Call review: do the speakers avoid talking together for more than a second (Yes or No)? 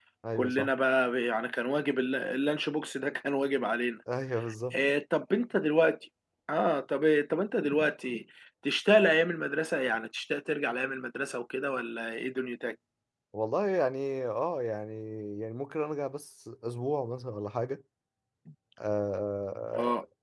Yes